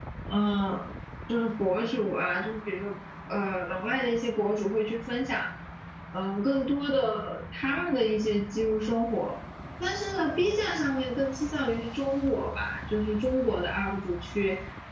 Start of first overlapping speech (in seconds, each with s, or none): none